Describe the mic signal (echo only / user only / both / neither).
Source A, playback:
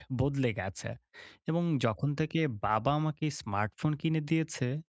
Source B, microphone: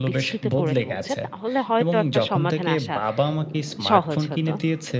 both